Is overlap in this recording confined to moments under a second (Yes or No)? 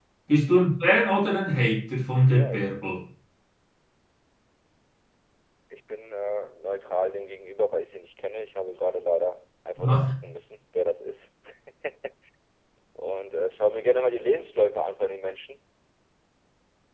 Yes